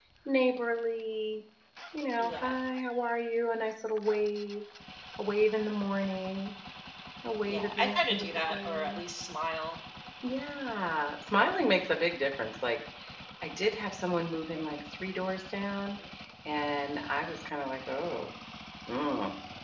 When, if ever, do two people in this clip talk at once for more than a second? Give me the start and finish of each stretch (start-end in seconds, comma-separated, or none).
7.4-9.0